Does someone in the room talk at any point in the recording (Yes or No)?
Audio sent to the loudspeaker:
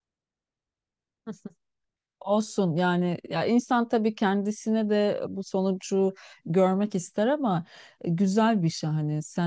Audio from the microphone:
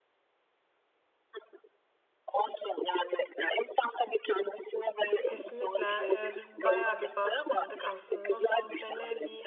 Yes